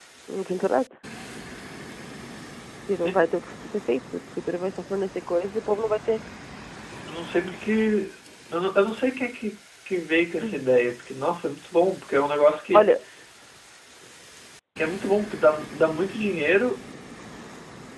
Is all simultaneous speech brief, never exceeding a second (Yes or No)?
Yes